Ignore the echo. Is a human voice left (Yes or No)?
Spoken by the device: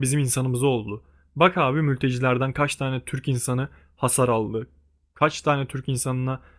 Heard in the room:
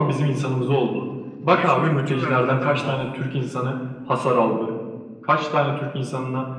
Yes